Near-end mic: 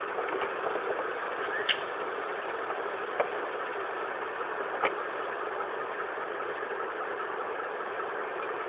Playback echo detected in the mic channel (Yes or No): No